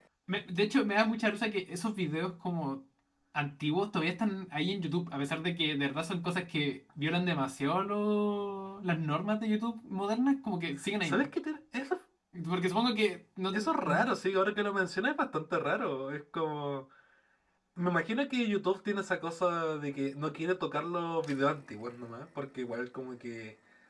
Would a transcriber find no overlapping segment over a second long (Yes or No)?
Yes